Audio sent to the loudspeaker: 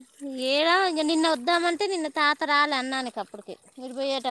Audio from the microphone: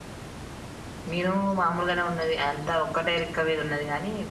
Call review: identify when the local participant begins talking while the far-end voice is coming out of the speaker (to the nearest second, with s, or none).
1 s